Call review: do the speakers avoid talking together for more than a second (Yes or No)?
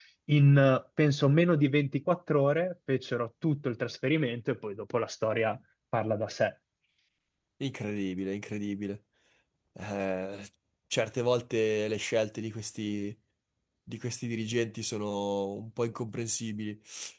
Yes